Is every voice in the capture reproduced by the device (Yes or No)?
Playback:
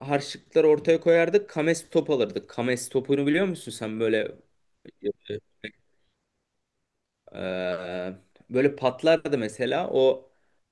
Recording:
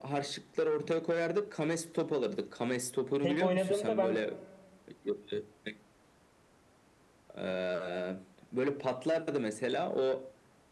No